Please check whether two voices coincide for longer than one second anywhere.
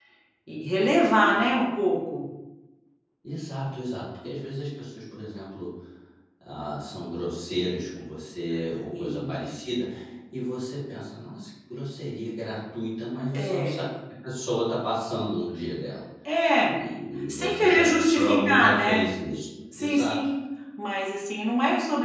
Yes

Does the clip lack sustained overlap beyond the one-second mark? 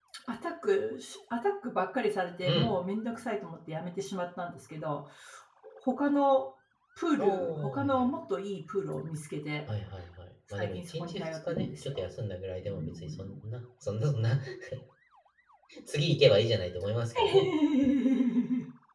No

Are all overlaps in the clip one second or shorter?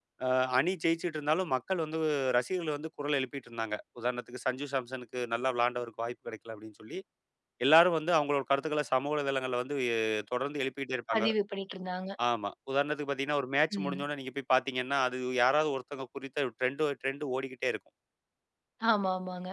Yes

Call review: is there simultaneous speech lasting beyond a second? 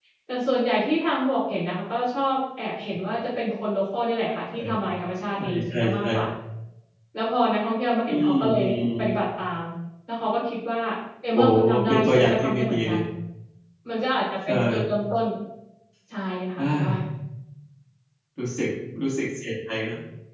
Yes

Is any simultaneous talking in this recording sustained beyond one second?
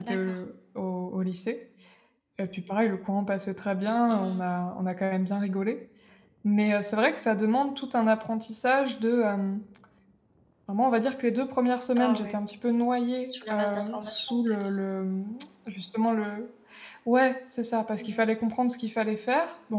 Yes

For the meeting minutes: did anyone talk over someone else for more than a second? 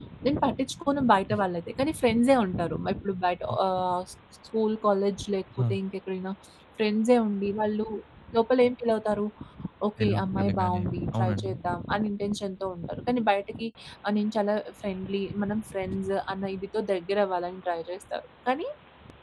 Yes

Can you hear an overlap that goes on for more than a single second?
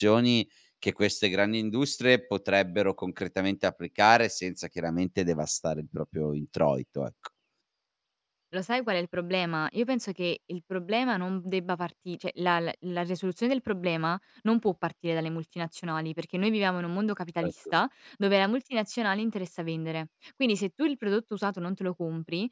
No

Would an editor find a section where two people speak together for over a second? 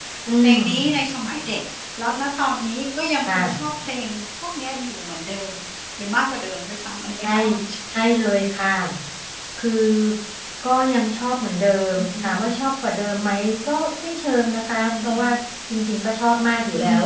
No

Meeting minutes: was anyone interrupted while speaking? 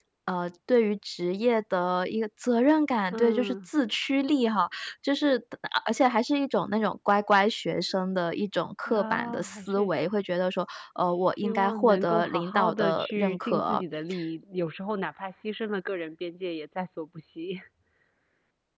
Yes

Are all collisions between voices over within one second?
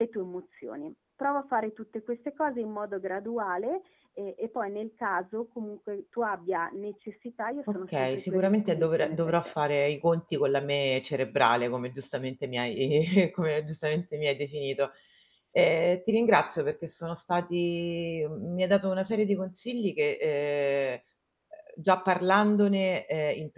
No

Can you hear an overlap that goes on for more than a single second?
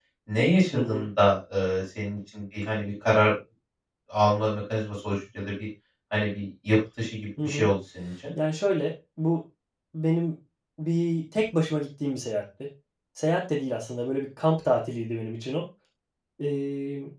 No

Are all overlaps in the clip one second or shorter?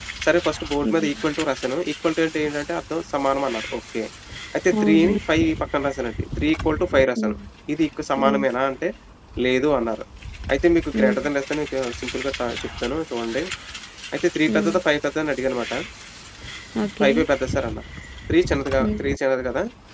Yes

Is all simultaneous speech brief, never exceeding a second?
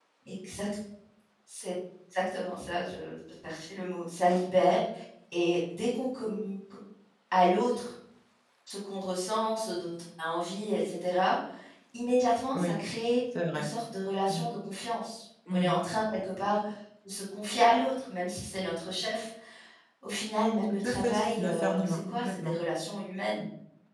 No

